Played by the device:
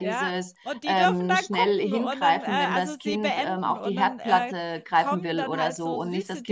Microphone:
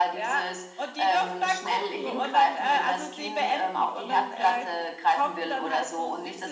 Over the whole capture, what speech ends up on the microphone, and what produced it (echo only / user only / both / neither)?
echo only